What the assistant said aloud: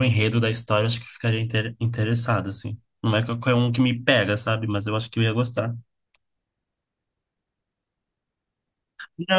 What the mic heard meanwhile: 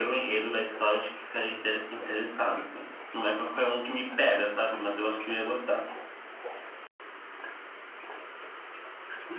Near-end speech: none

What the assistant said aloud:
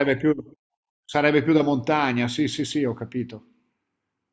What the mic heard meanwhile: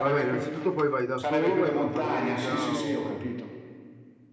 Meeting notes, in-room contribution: present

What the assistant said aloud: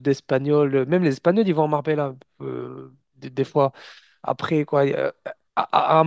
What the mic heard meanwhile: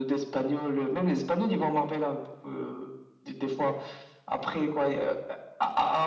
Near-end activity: none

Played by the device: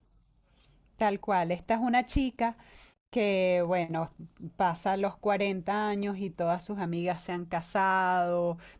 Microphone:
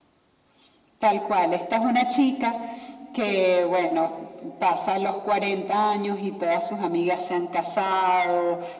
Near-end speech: none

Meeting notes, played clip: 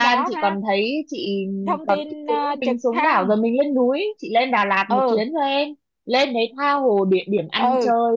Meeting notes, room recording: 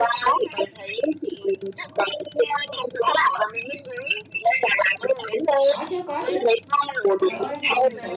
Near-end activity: present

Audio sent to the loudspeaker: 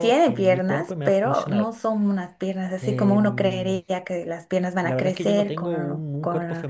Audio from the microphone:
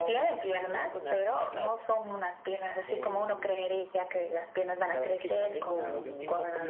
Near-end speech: present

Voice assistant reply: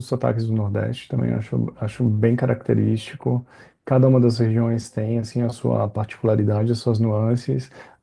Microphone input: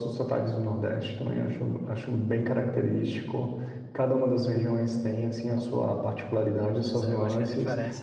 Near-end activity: present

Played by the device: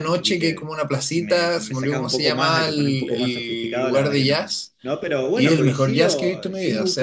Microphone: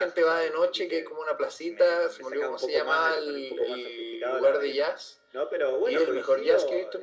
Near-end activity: none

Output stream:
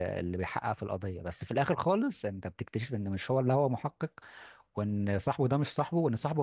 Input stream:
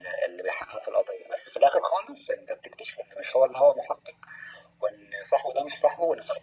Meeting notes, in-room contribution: none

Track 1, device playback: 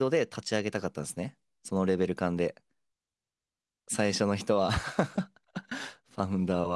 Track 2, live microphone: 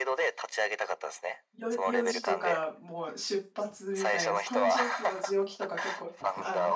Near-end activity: present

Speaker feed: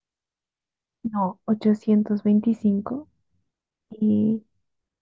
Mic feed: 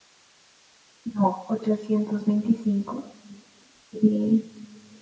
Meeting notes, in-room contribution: none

